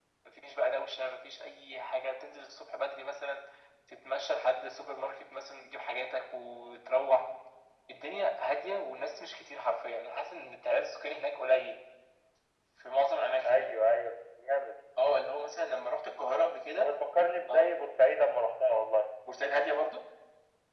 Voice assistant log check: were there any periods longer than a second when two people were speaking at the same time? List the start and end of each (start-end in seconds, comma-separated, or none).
none